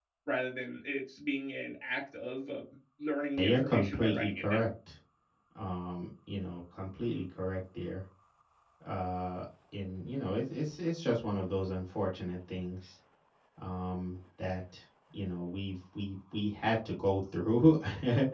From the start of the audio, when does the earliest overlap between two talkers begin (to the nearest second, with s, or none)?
3 s